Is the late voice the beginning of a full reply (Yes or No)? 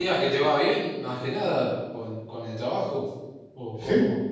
Yes